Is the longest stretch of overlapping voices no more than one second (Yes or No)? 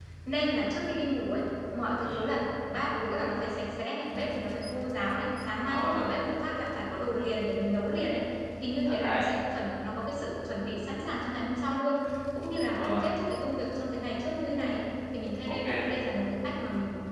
Yes